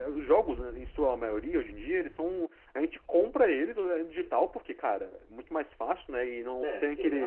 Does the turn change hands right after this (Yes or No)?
Yes